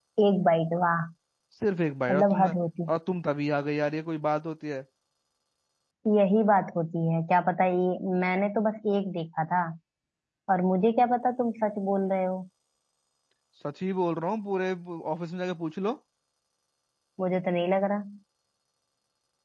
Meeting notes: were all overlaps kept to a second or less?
Yes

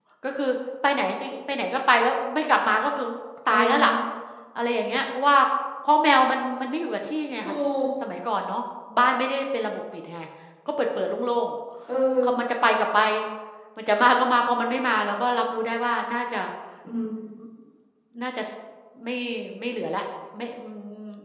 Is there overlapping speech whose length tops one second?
No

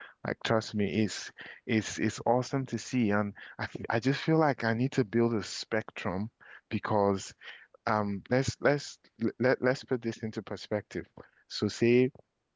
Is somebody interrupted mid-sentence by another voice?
No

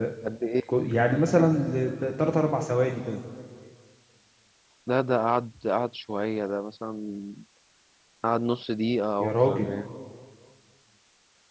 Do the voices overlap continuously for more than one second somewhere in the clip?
No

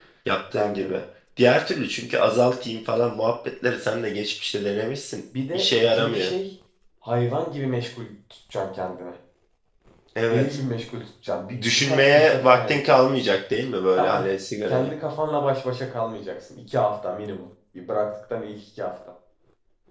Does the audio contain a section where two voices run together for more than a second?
Yes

